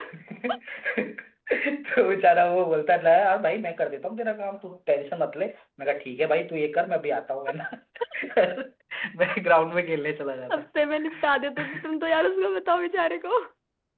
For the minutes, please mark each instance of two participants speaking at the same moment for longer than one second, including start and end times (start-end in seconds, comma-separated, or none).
none